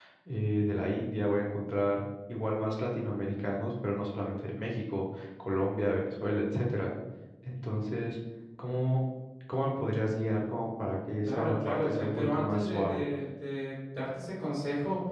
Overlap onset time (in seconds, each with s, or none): 11.2 s